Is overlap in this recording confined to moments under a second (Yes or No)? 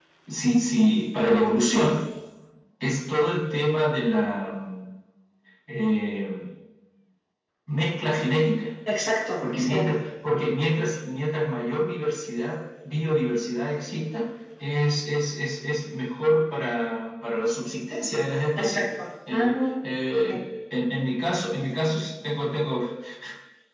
Yes